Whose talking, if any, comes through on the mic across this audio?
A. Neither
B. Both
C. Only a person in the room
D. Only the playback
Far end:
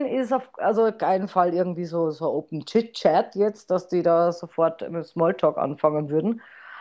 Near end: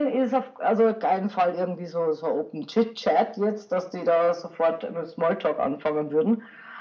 D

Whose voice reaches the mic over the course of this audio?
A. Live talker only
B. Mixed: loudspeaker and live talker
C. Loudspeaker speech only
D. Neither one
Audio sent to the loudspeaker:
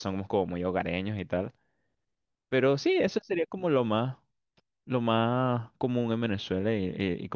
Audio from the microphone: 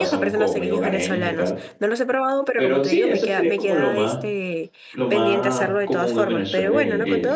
B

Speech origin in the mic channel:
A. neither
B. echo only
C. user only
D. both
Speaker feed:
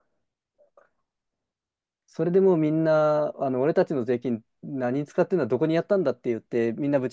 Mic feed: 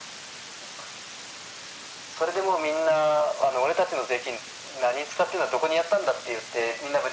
B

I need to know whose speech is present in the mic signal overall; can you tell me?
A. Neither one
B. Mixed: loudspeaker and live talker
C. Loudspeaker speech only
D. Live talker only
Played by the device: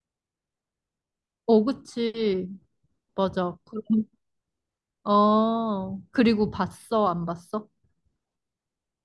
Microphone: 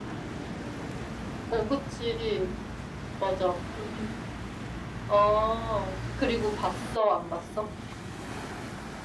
C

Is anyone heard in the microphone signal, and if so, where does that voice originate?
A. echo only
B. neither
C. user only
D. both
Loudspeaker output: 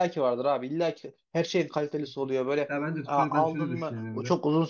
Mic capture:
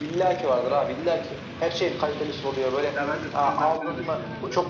A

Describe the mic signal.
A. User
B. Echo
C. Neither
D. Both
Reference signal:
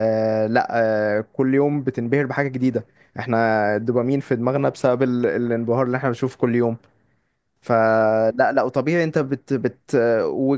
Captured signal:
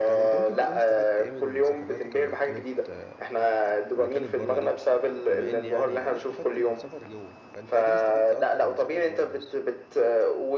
D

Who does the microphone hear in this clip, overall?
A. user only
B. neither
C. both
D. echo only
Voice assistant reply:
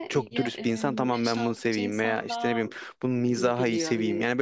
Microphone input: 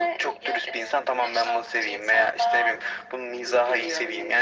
D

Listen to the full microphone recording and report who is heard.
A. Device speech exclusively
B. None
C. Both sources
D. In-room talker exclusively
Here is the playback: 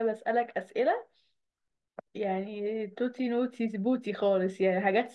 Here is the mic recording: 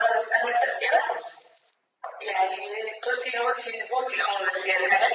A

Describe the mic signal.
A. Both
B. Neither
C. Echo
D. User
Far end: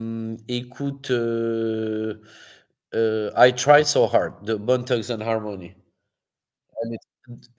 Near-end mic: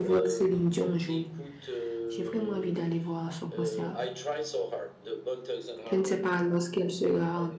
A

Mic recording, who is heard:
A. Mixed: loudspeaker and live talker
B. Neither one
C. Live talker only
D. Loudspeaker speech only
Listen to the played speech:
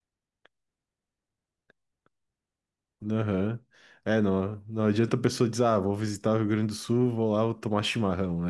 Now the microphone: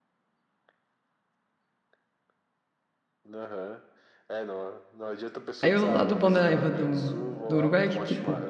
A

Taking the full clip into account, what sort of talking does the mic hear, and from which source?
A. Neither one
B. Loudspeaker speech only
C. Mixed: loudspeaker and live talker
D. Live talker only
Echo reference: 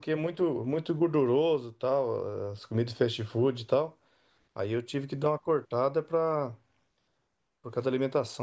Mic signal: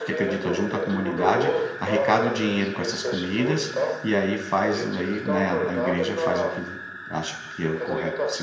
C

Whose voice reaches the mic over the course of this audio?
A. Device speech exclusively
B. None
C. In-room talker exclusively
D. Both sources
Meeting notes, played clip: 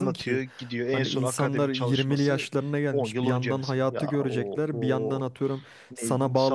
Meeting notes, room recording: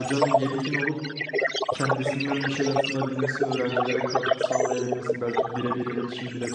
D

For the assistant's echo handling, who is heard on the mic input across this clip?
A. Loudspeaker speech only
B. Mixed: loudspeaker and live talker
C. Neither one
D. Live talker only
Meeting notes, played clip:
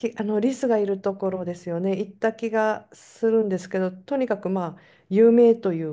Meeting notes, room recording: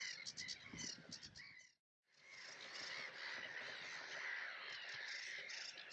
C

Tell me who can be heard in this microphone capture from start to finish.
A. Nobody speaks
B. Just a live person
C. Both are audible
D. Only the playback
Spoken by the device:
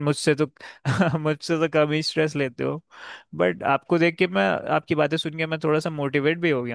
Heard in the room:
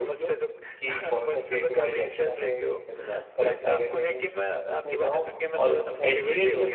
C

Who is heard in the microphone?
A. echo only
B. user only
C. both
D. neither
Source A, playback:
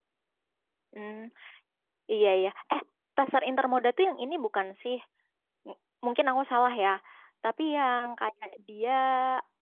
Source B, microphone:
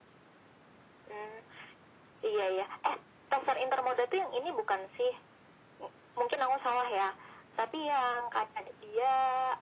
A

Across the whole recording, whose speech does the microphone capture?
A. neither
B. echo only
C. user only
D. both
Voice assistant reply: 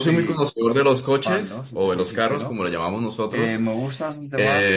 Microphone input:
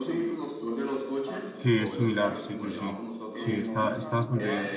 D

